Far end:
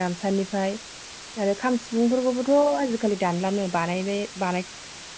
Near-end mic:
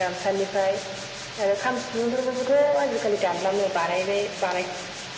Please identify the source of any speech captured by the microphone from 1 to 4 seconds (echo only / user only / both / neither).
echo only